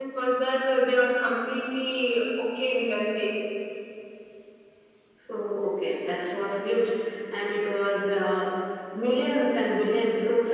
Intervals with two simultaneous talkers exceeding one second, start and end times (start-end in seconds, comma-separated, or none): none